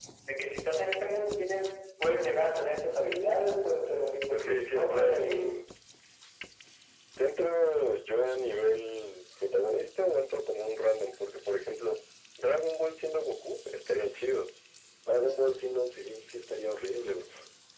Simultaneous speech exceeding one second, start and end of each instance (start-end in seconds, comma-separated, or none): 4.3-5.6